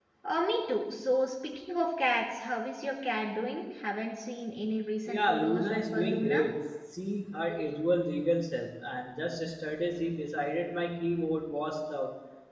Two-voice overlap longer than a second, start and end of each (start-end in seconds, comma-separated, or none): 5.1-6.4